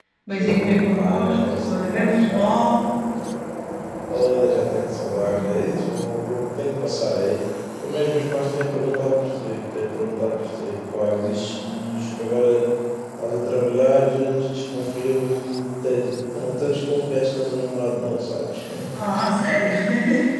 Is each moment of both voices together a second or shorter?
No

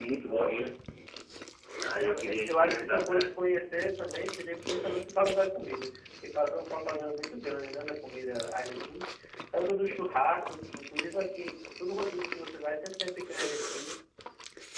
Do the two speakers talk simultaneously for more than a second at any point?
Yes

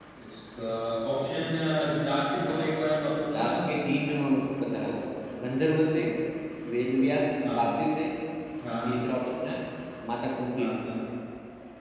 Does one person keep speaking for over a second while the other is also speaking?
No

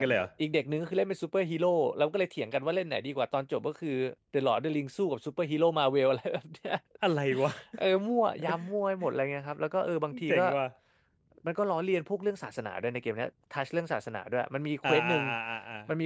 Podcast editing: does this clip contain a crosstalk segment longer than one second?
No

